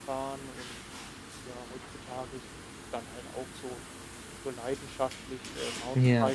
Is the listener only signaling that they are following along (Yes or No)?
Yes